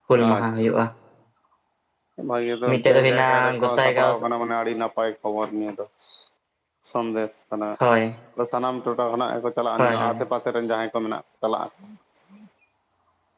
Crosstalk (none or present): present